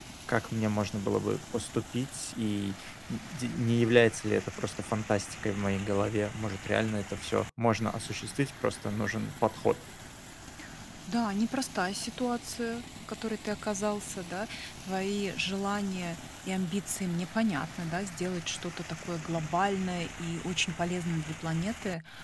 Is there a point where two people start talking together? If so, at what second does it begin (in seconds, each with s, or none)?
none